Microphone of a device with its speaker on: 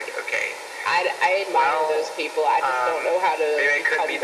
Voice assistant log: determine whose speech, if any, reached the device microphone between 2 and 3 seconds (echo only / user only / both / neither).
echo only